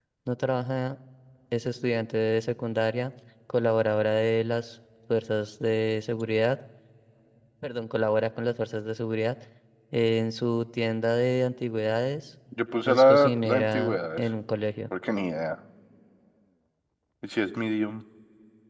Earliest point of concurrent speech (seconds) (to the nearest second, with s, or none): 13 s